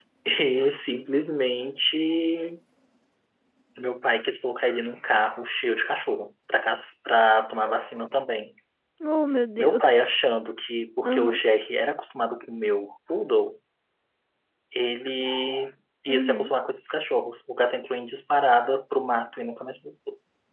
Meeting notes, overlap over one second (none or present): none